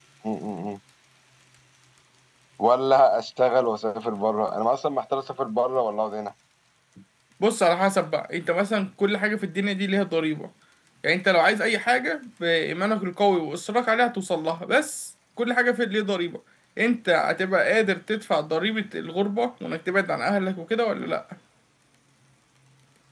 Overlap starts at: none

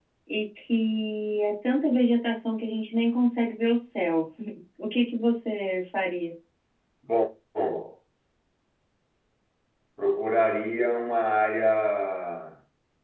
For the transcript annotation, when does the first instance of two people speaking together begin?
none

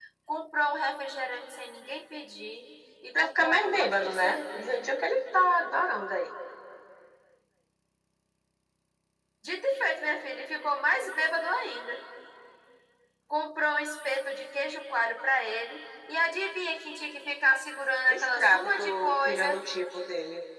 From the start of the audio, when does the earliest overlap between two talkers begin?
3.1 s

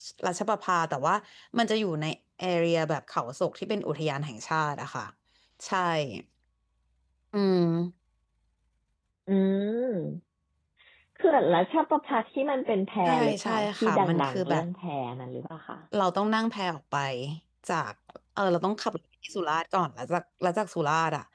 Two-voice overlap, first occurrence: 13.1 s

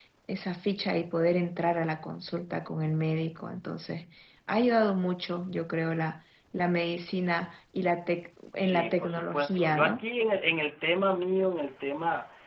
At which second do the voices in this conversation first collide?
8.6 s

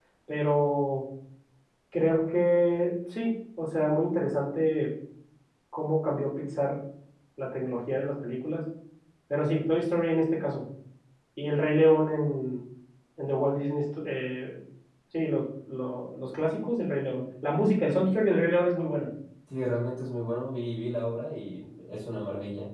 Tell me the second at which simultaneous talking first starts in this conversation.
none

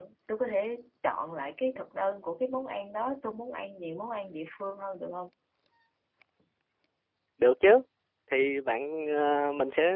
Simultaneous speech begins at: none

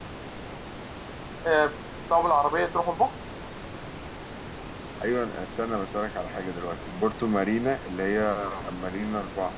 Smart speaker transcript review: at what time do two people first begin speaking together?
none

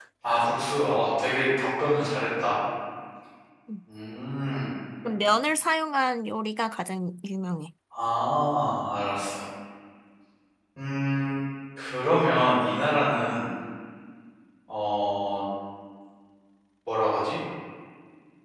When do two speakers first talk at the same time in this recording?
none

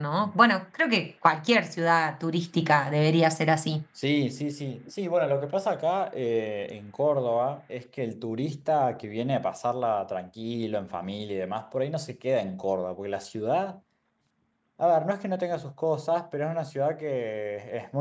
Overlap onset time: none

